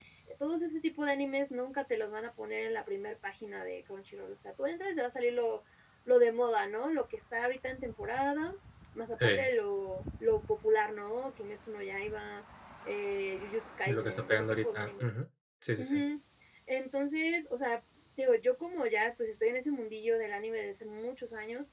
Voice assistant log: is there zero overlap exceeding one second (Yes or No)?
No